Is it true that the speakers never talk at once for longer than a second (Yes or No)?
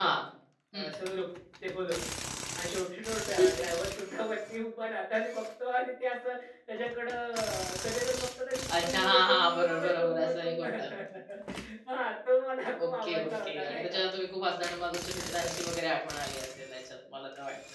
No